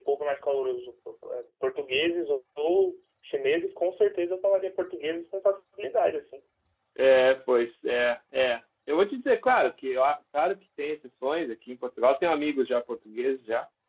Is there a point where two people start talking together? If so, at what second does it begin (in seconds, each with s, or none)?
none